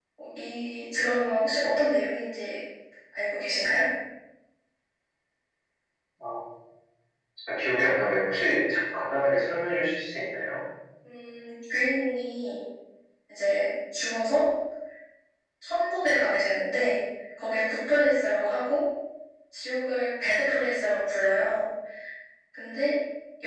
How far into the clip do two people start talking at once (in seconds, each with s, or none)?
none